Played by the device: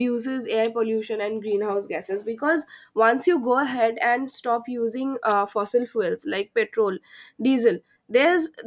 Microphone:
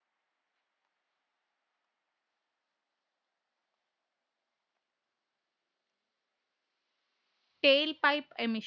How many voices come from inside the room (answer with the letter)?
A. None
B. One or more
B